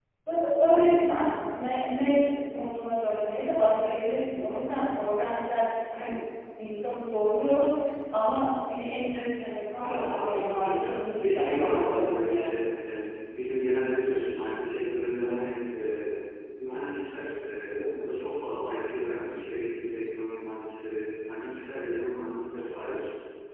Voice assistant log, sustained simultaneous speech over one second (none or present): present